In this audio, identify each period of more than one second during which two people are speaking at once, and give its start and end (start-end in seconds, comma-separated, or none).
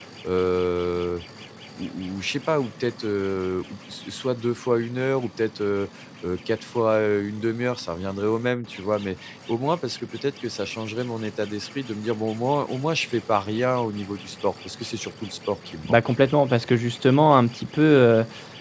none